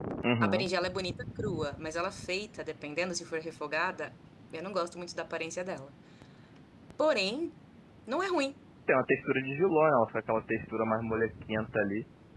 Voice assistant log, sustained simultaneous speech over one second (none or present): none